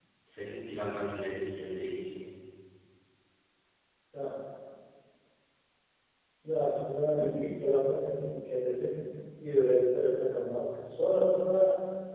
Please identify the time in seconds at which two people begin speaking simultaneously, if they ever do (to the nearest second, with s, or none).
none